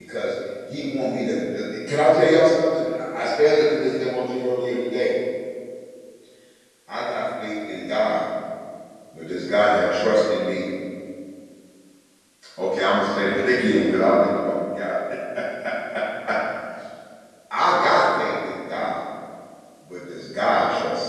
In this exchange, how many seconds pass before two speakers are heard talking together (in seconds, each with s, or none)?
none